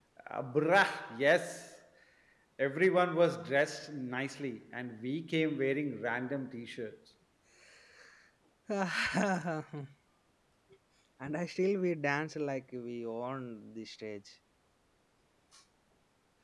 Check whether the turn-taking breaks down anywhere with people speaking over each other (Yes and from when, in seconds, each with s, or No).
No